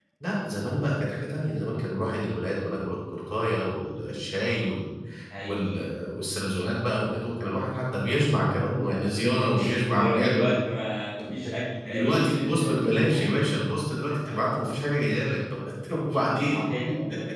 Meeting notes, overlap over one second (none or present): present